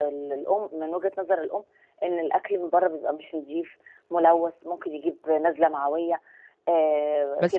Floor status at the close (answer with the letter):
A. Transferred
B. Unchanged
A